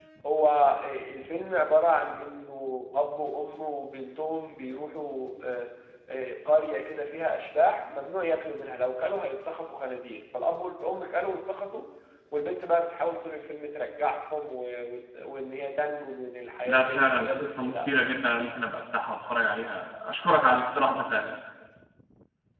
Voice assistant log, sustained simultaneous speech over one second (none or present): present